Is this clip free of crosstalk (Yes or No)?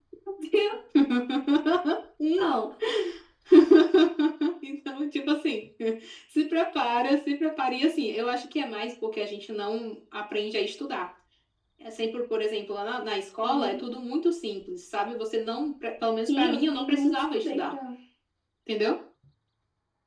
No